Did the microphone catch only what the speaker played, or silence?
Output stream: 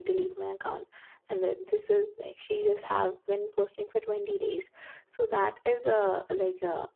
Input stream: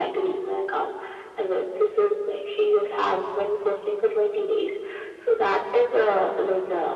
Yes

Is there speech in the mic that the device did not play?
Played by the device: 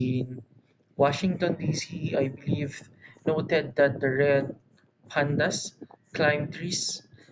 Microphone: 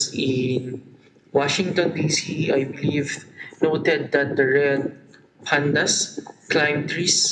No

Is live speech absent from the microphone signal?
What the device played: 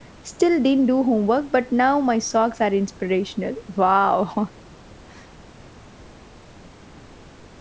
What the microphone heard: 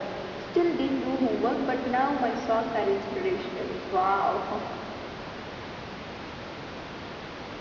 Yes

